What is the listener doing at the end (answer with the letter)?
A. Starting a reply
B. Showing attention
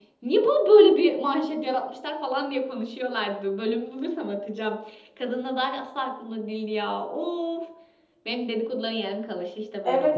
A